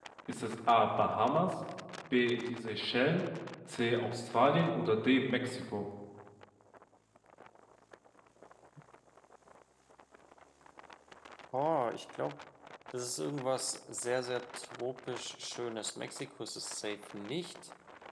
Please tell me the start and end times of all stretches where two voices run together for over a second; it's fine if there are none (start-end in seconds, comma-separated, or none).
none